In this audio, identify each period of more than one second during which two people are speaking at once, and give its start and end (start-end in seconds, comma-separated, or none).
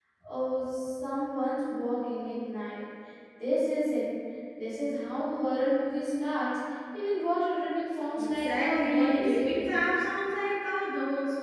8.2-9.7